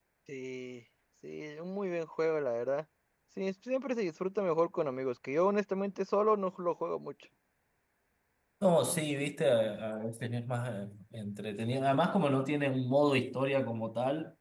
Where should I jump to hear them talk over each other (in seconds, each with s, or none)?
none